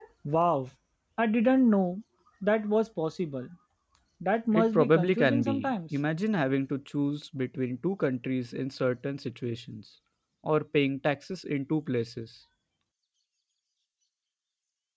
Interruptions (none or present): present